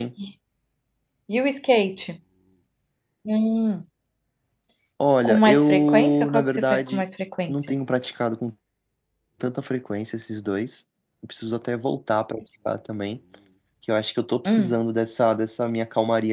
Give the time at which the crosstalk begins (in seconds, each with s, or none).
5.2 s